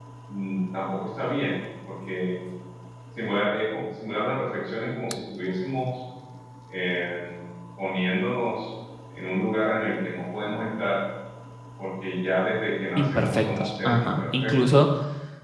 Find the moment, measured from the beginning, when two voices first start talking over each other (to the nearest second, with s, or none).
13 s